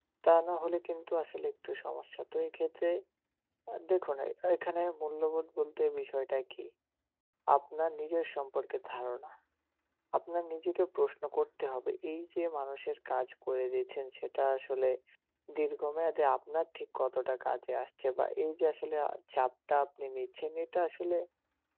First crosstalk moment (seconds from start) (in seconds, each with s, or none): none